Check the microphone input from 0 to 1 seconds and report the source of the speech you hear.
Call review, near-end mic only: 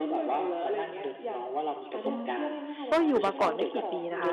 echo only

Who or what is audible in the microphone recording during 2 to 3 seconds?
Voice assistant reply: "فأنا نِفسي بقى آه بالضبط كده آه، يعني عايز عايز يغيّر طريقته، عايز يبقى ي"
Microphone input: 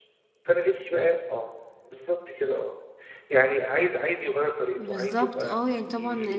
echo only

